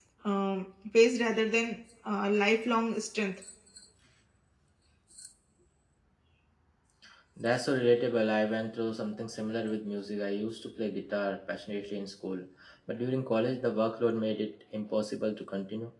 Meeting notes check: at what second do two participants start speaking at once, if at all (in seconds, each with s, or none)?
none